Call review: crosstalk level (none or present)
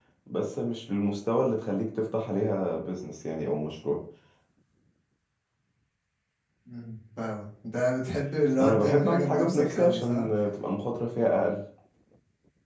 present